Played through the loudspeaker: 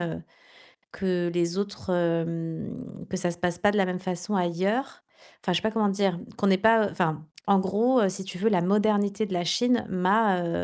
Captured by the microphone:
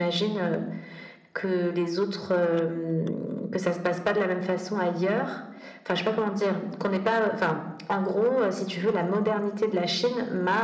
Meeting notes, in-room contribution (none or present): none